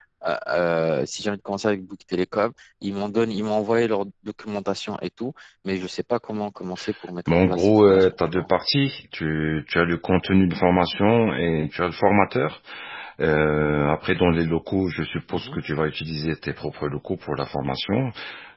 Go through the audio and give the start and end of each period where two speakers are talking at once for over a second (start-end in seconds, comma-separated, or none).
7.3-8.5